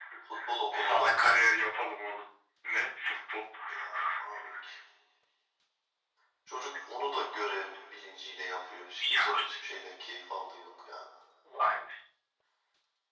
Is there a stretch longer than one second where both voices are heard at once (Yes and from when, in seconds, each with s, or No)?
No